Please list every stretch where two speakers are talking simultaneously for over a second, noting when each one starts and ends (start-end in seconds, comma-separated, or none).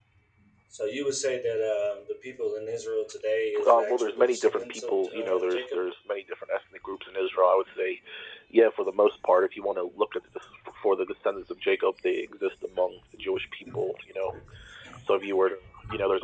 3.6-5.6